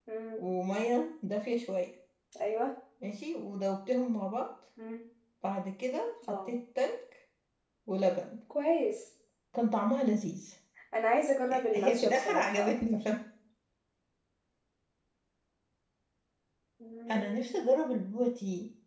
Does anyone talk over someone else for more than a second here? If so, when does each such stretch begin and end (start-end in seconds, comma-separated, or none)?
11.7-13.0